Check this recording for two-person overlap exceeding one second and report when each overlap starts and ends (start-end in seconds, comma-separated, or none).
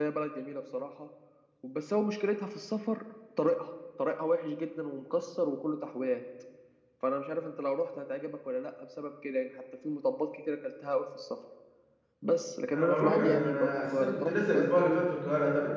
12.7-14.8